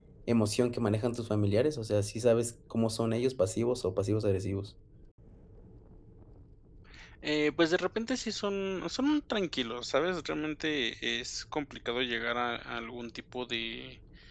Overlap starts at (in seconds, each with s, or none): none